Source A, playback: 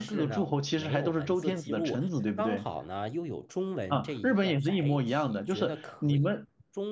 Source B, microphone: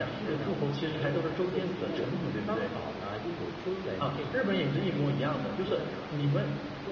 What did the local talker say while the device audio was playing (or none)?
none